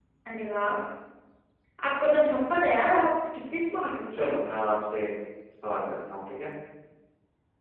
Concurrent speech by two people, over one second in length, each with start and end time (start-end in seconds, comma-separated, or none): none